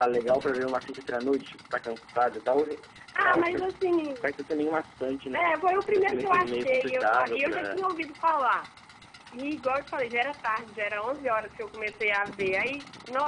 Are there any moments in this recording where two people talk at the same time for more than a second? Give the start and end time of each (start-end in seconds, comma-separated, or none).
6.0-7.8